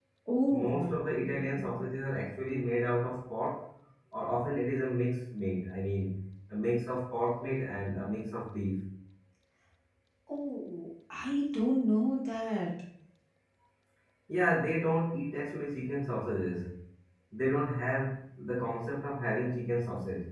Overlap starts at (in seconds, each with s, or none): 0.5 s